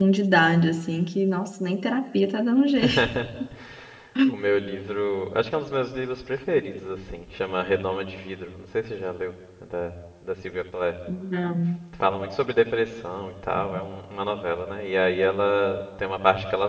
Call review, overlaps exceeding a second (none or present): none